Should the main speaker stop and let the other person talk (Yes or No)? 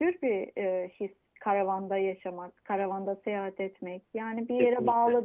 No